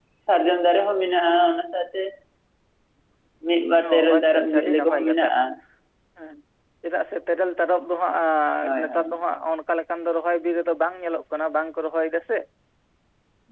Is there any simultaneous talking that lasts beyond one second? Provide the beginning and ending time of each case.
3.8-5.0

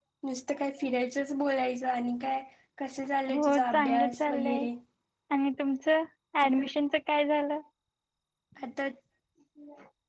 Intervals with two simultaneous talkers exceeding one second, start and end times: 3.3-4.7

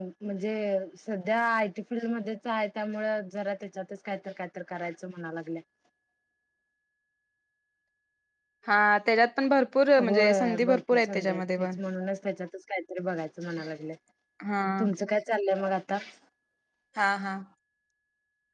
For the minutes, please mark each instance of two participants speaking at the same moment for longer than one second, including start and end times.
10.0-11.7

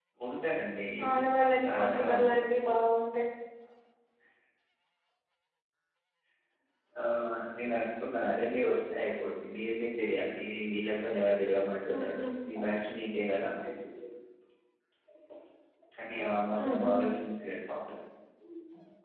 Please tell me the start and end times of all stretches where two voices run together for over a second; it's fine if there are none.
1.1-2.3

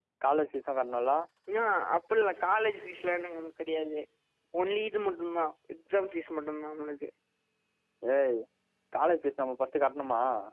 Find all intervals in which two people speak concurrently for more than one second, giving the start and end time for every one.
none

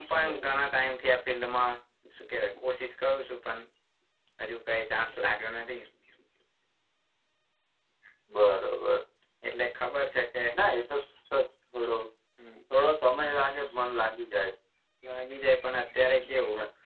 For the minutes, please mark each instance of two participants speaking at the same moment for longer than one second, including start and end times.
none

